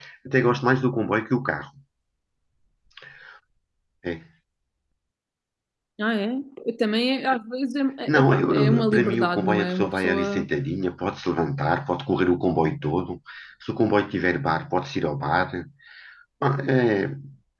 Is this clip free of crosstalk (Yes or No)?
No